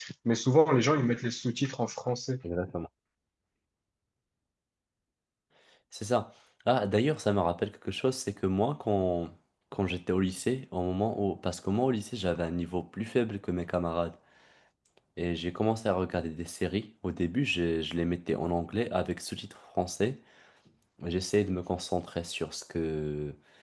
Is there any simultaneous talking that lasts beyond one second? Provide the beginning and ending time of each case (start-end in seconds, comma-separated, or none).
none